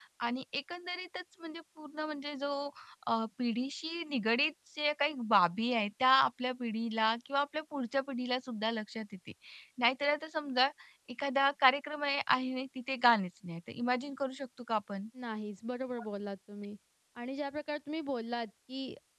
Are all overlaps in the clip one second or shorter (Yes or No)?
Yes